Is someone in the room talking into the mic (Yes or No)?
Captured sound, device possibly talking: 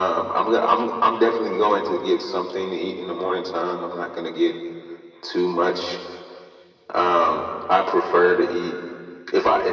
No